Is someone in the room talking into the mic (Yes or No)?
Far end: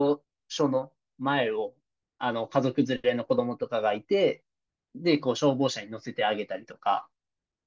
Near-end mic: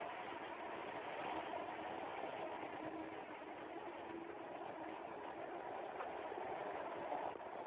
No